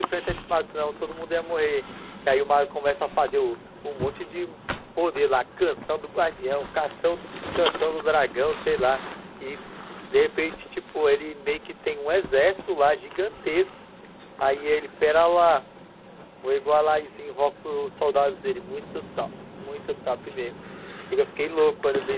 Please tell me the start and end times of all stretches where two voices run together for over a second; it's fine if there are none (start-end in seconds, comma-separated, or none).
none